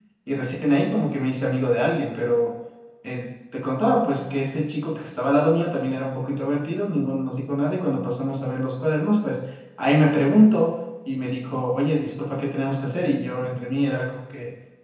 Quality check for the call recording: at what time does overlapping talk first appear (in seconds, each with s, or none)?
none